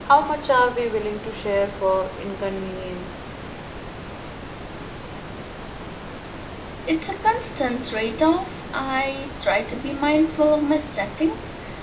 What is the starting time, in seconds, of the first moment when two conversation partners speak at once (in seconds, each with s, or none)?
none